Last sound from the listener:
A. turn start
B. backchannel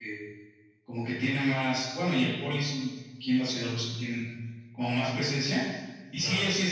B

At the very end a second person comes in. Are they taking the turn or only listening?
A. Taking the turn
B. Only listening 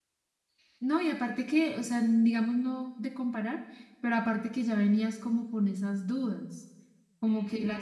B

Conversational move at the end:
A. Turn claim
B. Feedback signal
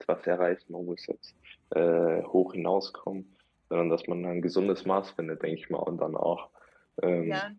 B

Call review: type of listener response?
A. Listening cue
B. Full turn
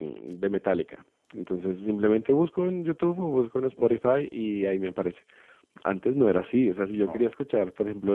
A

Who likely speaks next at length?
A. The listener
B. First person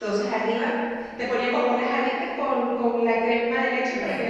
B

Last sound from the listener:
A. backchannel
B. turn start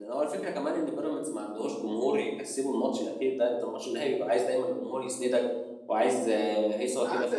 B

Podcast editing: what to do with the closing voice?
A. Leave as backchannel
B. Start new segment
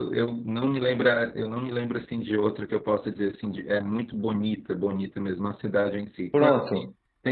A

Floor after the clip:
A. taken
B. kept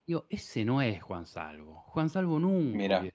B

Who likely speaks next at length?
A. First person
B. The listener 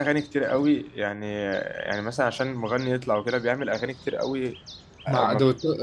B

